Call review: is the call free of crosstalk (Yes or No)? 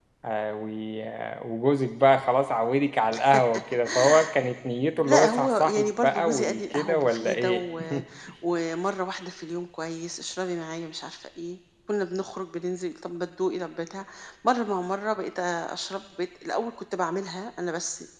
No